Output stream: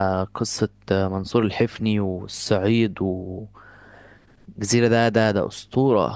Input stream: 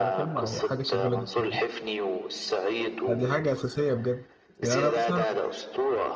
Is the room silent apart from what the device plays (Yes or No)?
No